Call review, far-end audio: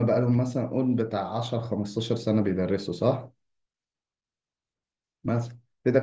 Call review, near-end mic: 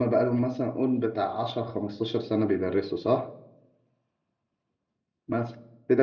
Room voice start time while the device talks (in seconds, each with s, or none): none